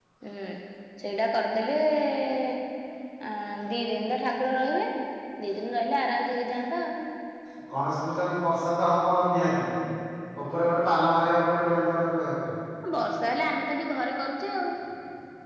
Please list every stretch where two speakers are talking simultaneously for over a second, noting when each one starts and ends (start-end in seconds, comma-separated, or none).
none